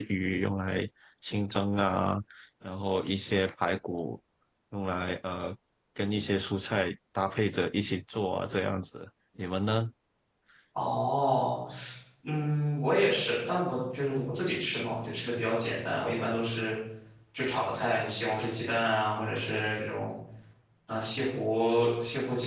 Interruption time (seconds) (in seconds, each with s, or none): none